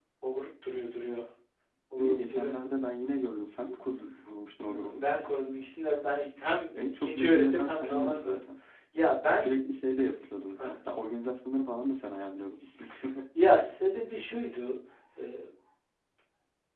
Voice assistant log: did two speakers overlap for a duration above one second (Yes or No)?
Yes